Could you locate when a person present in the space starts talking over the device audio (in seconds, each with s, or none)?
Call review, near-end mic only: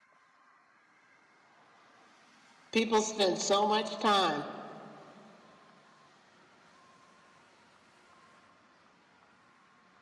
2.7 s